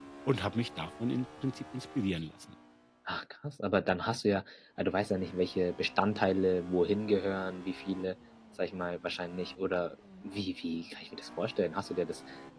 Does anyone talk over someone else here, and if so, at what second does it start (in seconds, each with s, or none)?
none